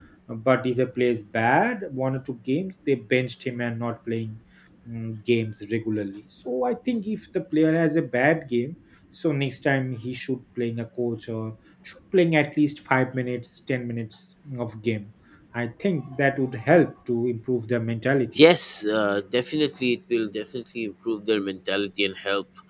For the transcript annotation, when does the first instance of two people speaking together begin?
none

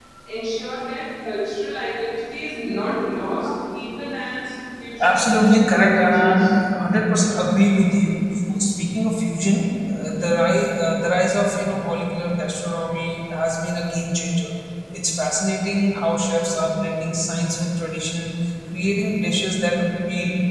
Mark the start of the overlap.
5.0 s

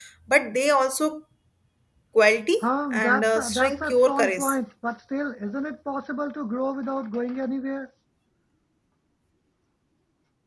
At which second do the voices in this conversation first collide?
2.6 s

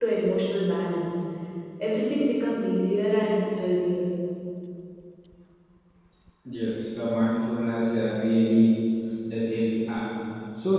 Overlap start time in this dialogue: none

